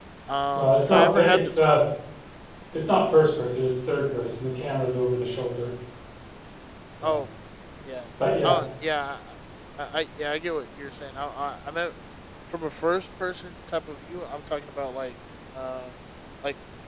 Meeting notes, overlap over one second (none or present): present